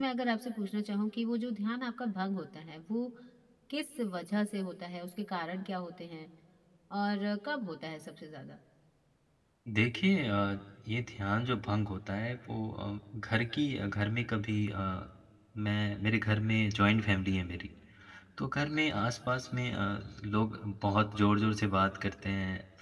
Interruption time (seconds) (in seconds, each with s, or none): none